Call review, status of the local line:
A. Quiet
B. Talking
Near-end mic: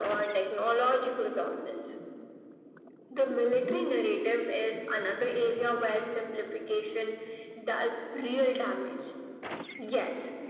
A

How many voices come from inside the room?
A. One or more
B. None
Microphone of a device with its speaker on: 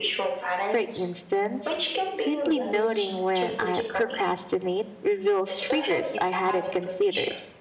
A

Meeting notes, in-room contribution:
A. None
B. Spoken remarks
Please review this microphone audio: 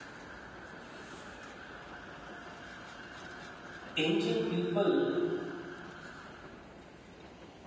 B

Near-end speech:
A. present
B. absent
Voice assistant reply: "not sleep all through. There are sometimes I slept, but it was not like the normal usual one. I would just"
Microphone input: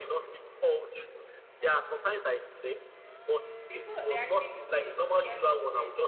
A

